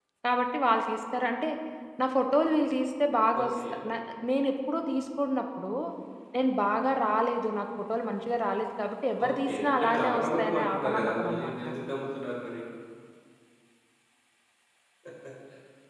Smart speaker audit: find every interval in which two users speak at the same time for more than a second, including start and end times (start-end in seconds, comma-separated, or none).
9.3-11.7